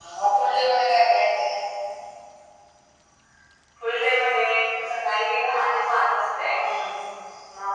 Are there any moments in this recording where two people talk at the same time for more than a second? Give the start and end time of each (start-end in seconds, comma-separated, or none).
none